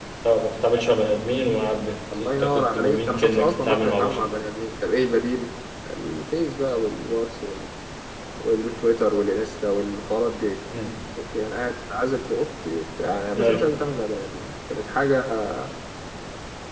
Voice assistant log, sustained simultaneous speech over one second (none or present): present